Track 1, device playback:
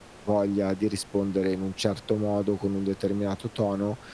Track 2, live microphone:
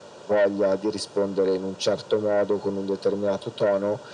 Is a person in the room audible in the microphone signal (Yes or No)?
No